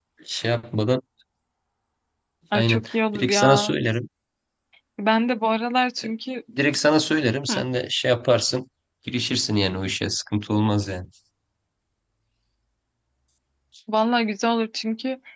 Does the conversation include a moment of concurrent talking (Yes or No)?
Yes